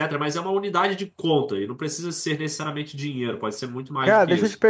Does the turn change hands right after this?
Yes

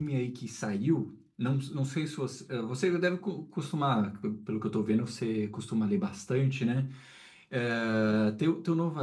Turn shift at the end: No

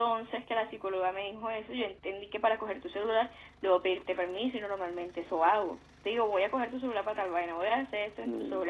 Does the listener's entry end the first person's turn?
Yes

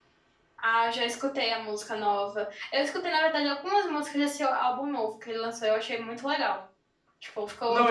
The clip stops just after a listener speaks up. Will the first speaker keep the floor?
Yes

